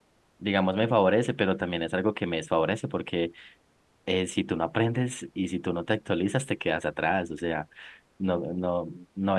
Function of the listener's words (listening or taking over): listening